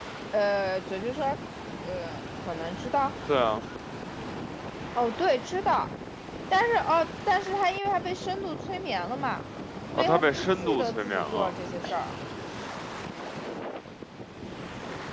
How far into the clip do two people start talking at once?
10.0 s

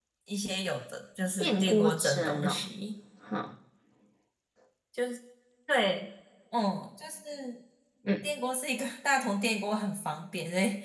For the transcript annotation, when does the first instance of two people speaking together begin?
1.4 s

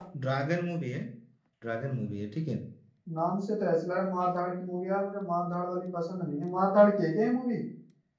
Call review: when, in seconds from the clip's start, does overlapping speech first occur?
none

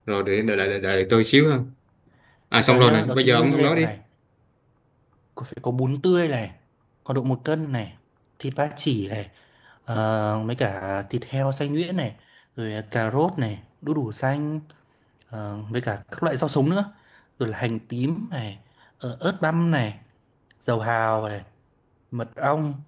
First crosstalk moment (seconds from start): 2.6 s

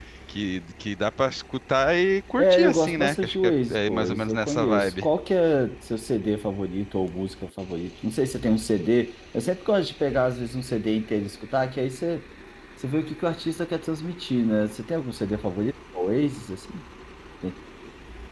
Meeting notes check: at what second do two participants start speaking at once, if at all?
2.4 s

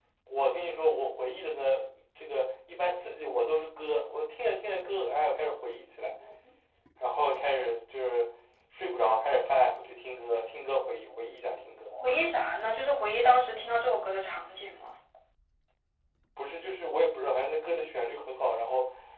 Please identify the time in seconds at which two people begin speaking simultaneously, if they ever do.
none

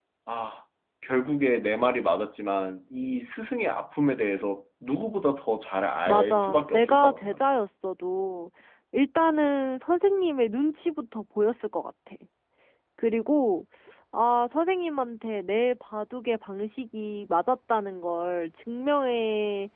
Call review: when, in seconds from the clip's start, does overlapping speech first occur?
6.1 s

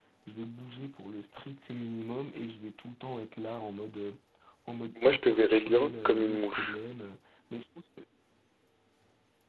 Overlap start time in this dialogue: 5.0 s

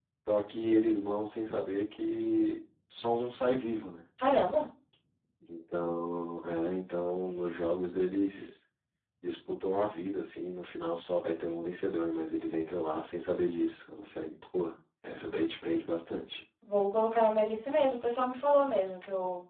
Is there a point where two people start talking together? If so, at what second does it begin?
none

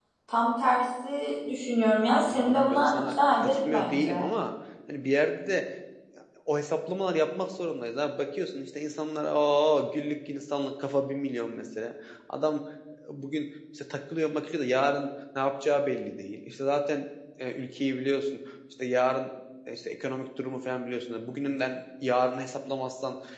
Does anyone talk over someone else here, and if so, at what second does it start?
2.3 s

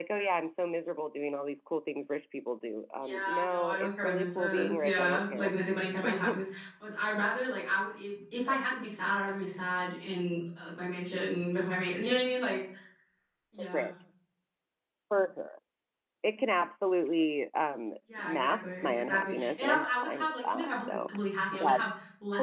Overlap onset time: 3.0 s

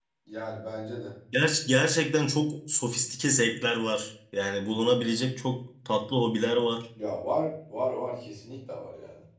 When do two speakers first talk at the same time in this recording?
none

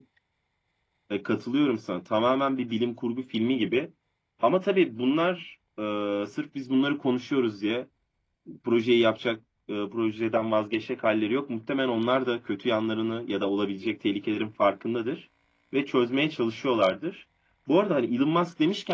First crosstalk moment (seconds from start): none

